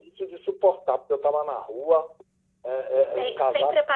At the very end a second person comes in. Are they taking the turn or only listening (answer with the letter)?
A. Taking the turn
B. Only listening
A